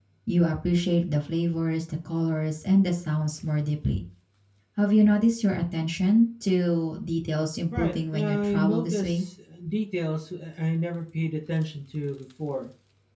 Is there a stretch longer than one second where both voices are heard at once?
Yes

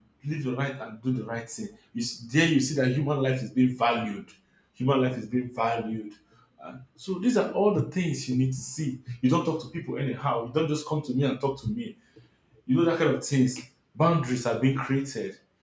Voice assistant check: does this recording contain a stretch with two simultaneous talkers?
No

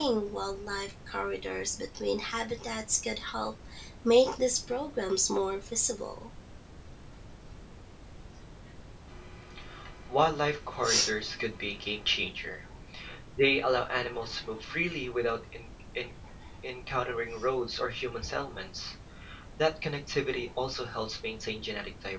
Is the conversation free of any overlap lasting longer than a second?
Yes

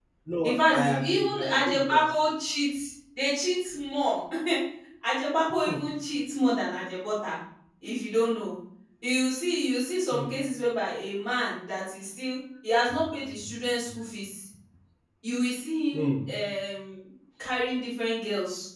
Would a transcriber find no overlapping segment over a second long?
No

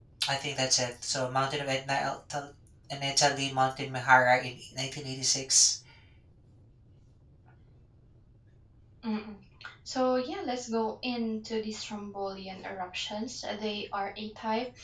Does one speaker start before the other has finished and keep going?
No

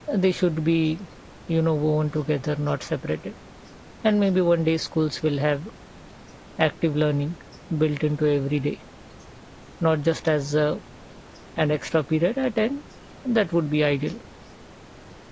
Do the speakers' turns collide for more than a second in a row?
No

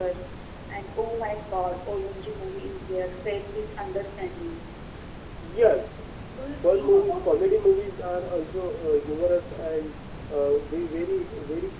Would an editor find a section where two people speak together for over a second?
Yes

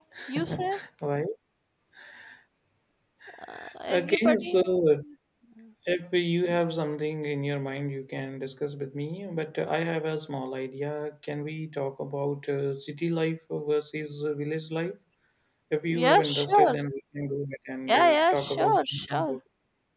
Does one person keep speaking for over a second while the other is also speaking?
Yes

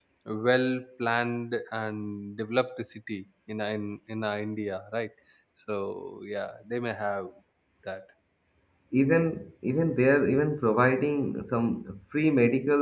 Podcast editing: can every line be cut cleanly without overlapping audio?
Yes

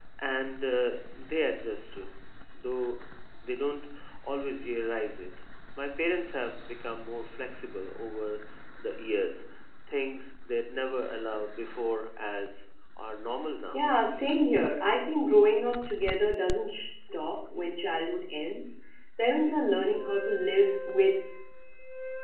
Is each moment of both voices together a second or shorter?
Yes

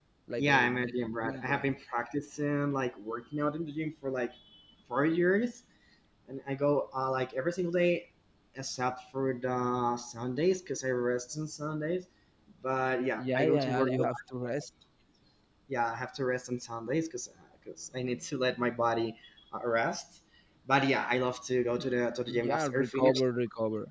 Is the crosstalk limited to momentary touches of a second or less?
No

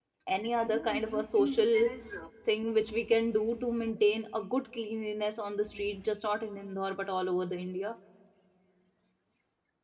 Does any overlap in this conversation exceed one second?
Yes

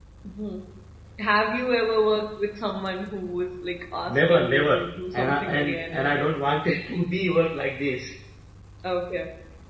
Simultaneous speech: Yes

